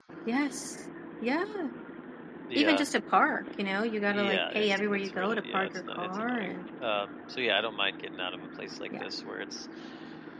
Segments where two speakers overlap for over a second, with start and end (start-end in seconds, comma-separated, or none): 4.1-6.5